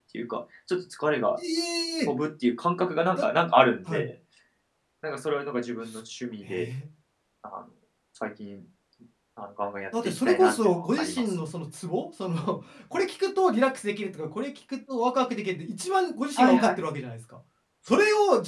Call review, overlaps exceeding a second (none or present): present